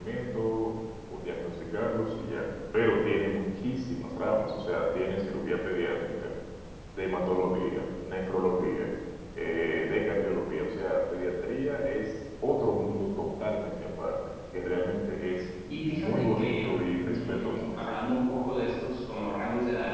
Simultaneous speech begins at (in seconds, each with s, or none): 15.7 s